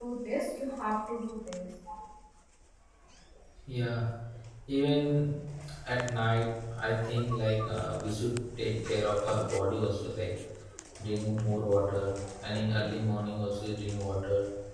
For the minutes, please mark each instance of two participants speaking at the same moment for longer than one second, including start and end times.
none

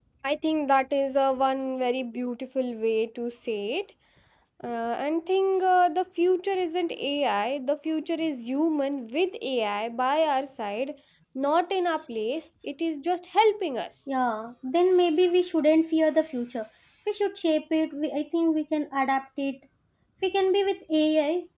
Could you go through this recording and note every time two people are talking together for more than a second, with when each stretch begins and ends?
none

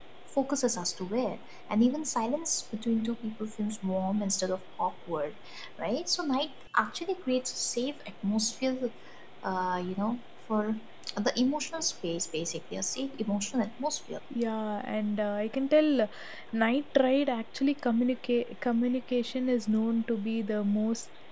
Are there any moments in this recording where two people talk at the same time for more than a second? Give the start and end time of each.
none

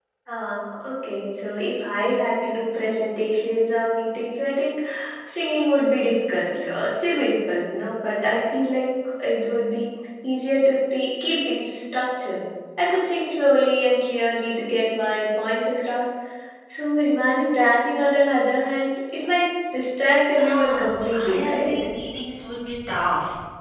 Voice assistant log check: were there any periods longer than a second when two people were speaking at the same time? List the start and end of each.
20.4-21.8

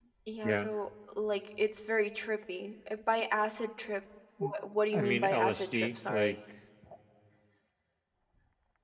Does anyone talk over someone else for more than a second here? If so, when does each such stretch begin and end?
4.9-6.4

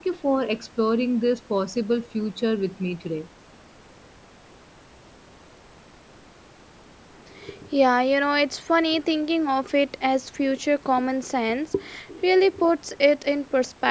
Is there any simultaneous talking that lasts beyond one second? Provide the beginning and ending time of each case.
none

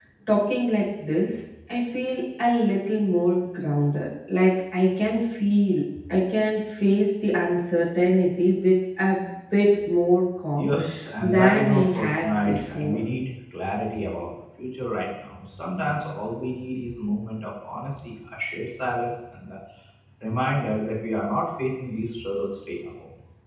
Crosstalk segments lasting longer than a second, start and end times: 11.2-13.0

